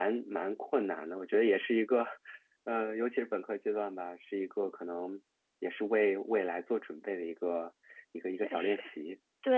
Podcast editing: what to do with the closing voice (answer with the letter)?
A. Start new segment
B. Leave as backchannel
A